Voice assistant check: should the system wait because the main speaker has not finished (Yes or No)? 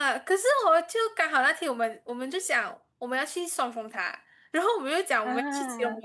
Yes